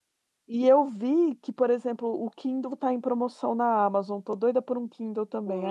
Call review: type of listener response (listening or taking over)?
taking over